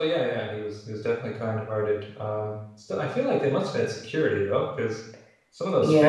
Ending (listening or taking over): taking over